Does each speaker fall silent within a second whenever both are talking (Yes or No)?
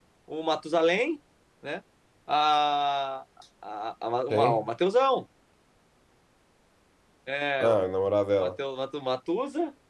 Yes